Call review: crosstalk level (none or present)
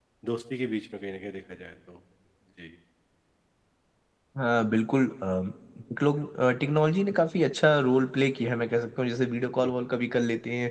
none